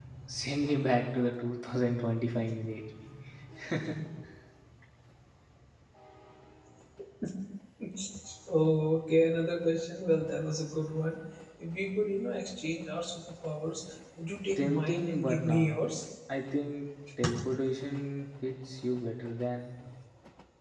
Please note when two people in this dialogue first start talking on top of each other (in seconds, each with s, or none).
14.6 s